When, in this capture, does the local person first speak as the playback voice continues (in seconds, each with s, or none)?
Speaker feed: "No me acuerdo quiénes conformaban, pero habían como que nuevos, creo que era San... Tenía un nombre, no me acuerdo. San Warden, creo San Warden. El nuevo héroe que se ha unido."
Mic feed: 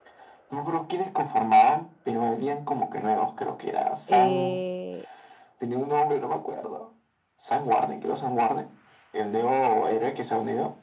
4.1 s